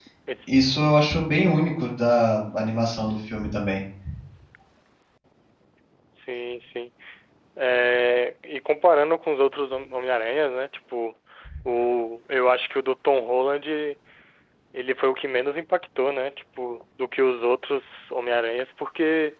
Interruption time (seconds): none

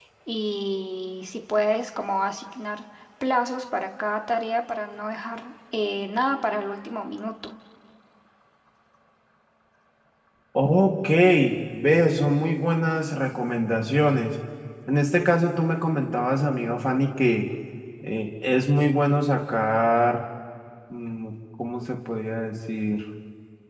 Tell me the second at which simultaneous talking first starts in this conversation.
none

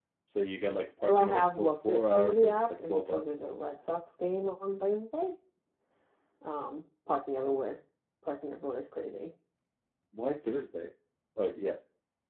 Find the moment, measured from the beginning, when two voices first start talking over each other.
1.0 s

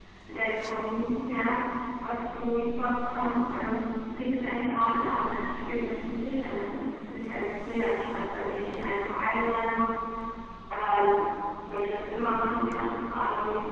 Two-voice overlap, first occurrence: none

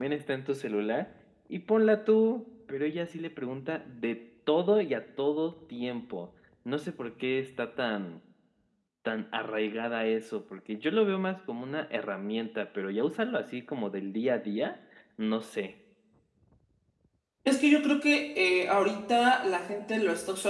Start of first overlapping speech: none

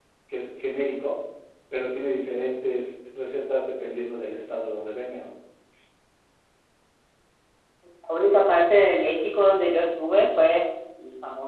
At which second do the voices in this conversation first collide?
none

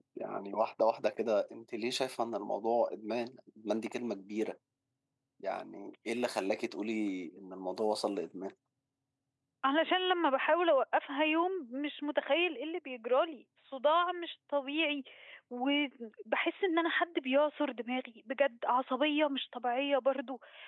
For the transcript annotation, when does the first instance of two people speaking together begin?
none

